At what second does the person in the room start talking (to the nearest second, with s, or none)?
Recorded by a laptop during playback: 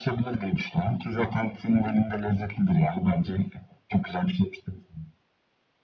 none